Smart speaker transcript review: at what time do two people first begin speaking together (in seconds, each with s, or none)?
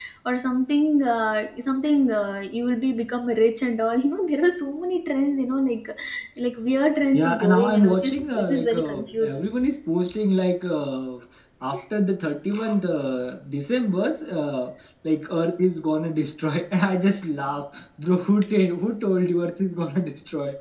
7.1 s